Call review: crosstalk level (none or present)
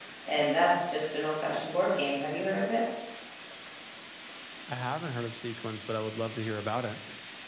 none